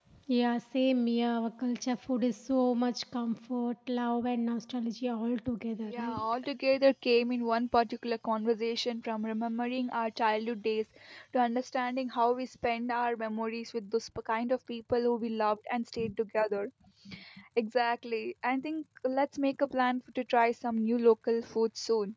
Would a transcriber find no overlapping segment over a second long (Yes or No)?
Yes